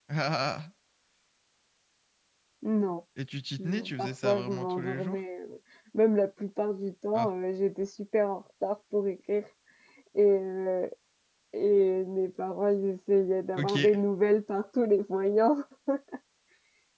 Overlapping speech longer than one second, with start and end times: 3.6-5.2

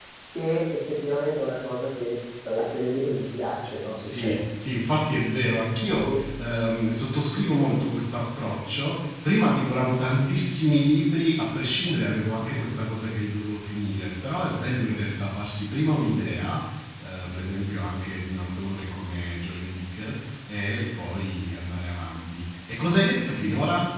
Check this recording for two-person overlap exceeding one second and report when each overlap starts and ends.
none

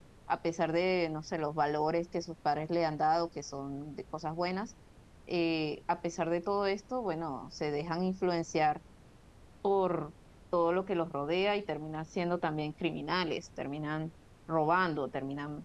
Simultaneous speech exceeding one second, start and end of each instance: none

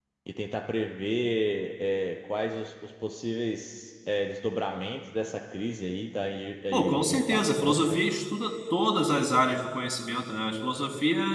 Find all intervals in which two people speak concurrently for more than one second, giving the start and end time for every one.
6.7-8.0

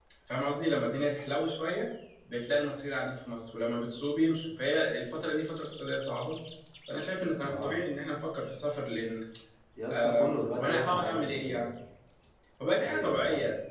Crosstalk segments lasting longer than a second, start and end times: 9.9-11.7

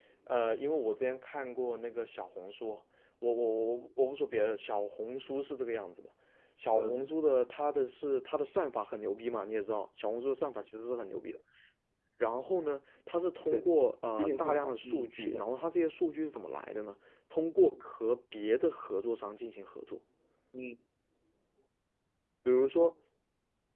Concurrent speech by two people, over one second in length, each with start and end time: 14.2-15.4

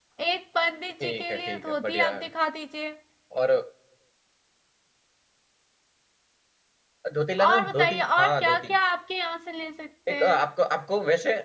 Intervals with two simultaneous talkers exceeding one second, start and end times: 1.0-2.3, 7.5-8.7

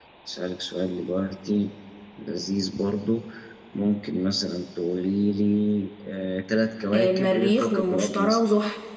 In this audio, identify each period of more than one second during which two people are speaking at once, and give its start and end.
6.9-8.4

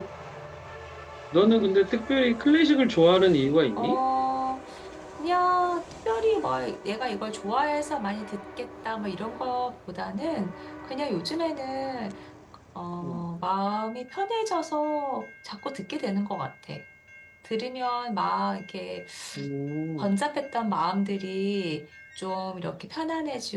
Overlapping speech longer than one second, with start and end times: none

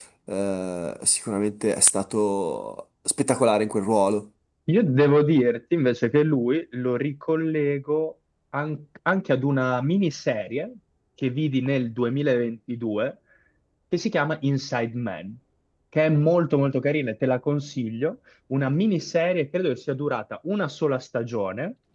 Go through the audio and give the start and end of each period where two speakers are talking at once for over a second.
none

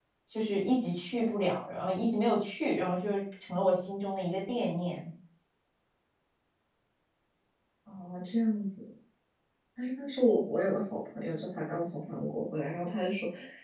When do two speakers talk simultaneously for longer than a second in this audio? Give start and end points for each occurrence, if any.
none

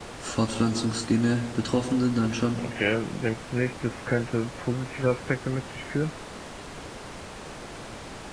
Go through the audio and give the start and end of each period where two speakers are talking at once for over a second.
none

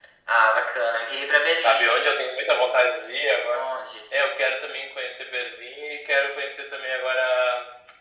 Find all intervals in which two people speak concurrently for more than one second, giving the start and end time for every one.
none

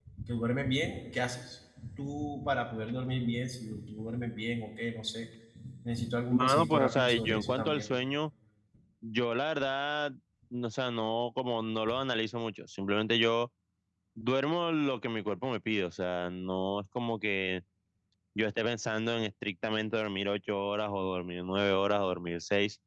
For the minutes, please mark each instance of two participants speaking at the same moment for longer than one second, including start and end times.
6.3-7.9

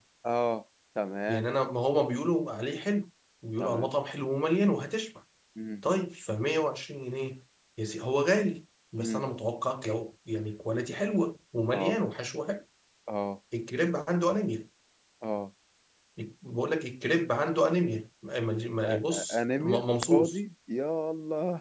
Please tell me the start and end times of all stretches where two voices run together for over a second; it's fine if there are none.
18.9-20.4

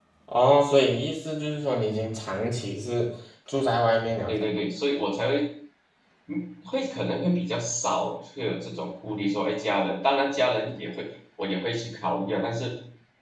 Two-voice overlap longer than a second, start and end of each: none

